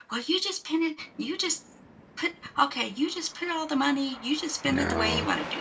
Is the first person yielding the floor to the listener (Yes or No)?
No